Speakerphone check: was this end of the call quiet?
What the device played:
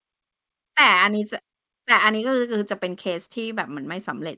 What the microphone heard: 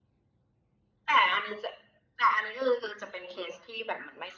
Yes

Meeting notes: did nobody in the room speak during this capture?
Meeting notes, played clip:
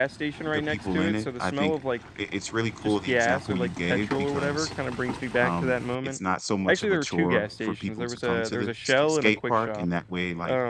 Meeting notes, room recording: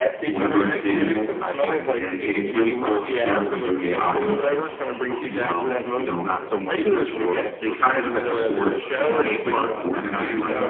No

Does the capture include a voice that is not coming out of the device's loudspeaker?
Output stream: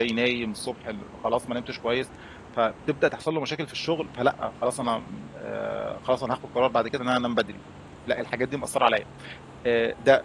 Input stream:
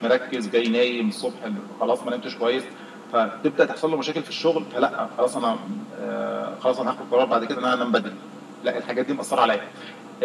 No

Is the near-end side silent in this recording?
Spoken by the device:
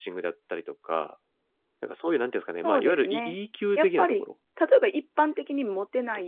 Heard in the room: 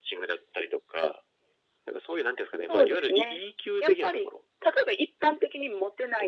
Yes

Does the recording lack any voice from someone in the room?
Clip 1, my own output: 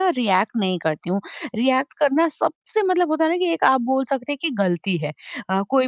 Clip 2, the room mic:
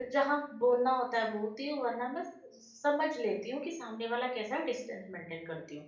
No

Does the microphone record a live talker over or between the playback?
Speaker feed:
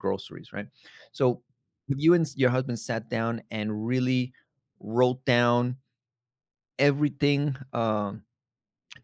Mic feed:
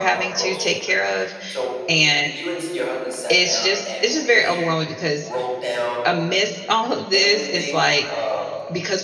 Yes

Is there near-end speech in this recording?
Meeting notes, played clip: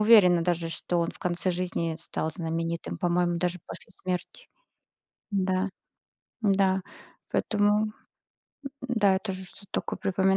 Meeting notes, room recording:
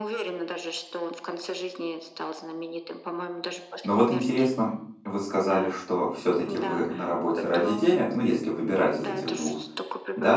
Yes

